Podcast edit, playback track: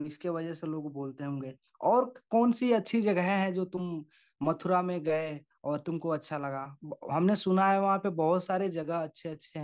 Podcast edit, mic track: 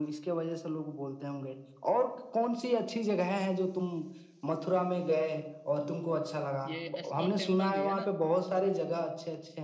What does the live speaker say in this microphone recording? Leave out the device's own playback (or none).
ये एस्कॉन टेम्पल भी है ना